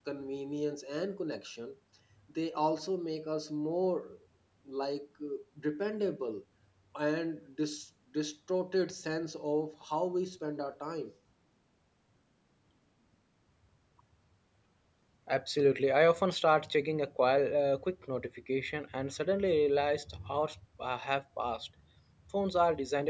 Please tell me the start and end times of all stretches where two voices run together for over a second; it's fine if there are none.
none

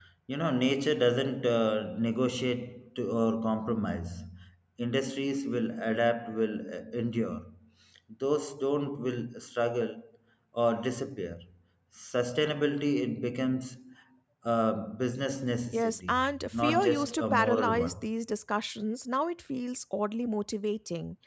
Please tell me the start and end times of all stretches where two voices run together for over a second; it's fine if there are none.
15.7-17.9

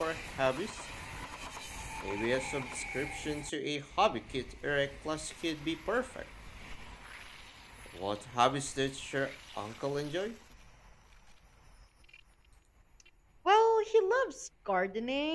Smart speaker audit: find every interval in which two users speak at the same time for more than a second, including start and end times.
none

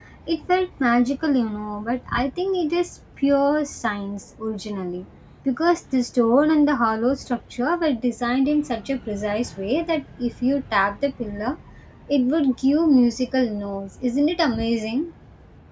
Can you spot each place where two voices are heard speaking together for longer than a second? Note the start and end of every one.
none

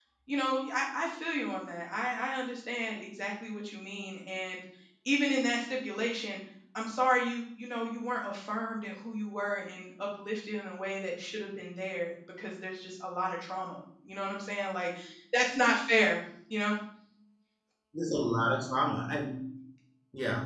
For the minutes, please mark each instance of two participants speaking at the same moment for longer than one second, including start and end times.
none

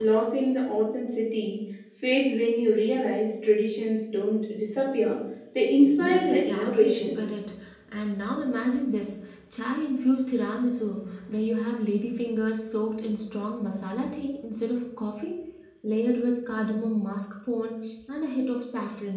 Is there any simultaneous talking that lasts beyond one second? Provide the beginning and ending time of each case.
6.0-7.2

